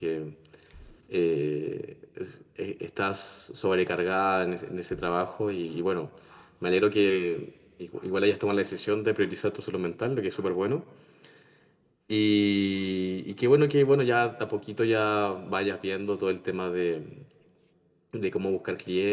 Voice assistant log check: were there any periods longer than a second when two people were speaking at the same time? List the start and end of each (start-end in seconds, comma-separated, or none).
none